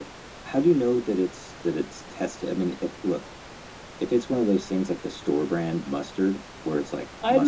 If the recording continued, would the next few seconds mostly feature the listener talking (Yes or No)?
Yes